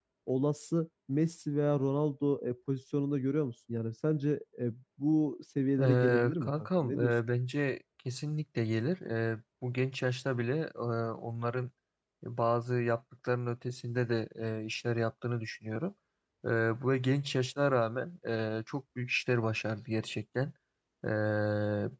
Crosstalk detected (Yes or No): Yes